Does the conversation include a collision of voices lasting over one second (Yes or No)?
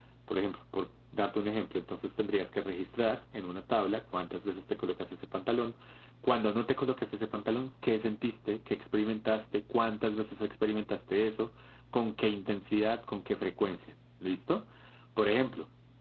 No